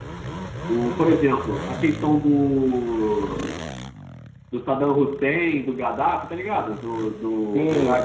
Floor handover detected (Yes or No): Yes